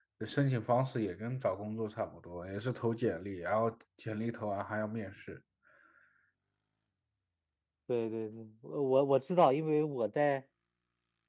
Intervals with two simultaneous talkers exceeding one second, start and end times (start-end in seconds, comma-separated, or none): none